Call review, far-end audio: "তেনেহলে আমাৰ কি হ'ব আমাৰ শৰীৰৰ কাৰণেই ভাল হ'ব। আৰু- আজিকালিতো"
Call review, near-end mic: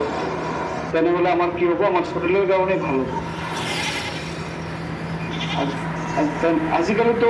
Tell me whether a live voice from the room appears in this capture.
No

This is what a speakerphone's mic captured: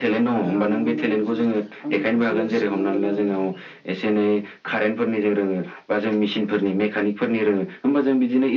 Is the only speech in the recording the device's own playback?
No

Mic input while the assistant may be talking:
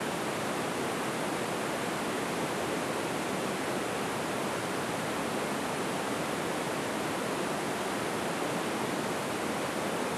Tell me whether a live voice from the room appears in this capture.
No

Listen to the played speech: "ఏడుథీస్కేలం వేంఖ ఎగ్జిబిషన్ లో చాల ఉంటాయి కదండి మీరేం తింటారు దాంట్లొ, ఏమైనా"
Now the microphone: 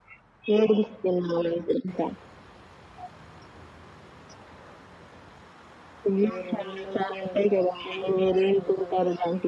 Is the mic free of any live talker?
No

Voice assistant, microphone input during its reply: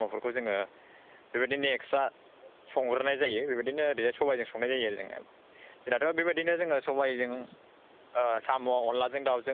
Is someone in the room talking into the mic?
Yes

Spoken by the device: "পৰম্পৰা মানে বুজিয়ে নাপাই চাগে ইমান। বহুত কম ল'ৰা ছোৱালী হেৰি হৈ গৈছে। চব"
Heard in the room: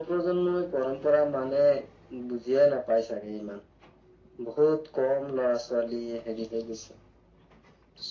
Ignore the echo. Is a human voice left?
No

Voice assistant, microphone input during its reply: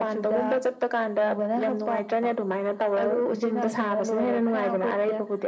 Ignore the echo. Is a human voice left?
No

